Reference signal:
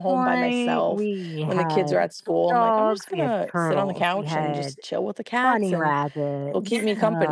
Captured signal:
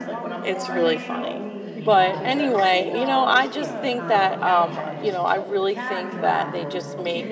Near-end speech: present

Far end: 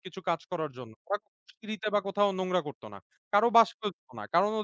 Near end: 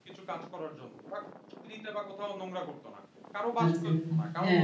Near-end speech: present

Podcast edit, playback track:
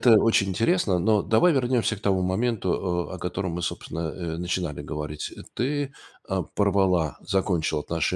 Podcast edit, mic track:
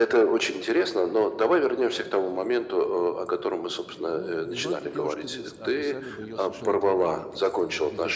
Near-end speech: present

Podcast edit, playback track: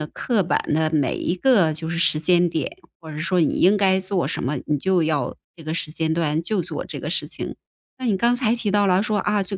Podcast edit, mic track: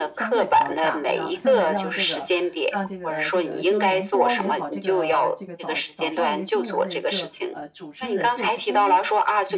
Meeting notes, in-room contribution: present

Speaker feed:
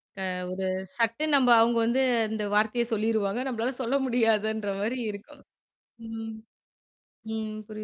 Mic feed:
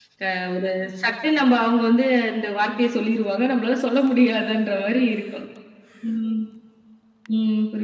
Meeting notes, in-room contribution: none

